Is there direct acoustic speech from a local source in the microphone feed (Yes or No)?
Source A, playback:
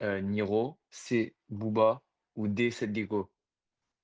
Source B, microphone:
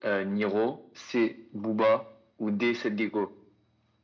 No